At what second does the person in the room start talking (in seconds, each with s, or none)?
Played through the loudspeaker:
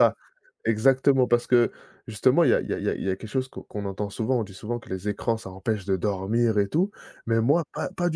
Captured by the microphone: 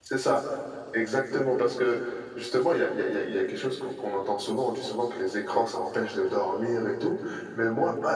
none